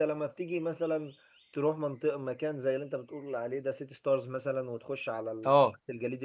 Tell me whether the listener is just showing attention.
Yes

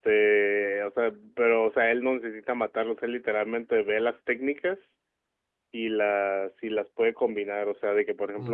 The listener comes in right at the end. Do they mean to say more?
No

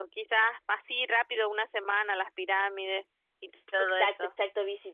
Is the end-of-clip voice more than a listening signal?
Yes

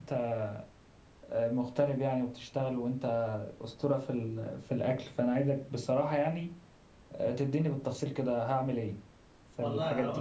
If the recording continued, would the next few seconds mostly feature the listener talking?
Yes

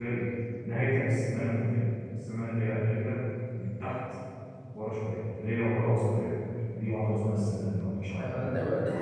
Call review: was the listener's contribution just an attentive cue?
No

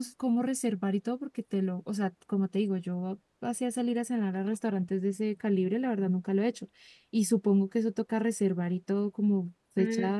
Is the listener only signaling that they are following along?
No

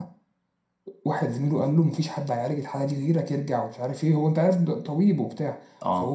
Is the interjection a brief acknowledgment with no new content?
Yes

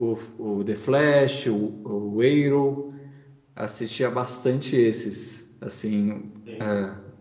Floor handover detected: No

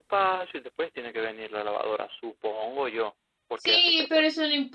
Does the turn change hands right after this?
Yes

